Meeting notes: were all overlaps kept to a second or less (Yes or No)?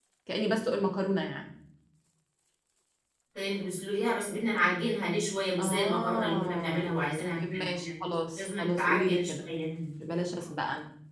No